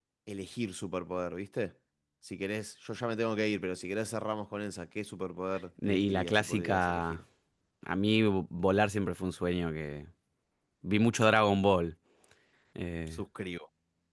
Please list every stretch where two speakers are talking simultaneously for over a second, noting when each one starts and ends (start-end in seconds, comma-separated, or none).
5.8-7.2